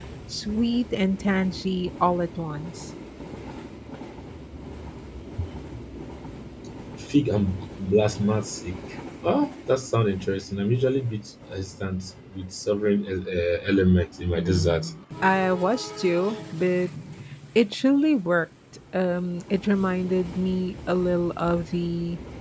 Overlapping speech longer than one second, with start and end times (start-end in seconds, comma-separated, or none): none